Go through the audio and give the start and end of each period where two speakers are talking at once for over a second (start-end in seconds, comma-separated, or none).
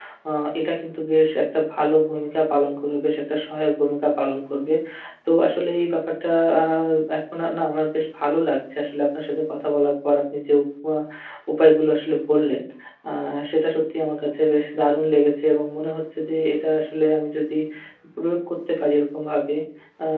none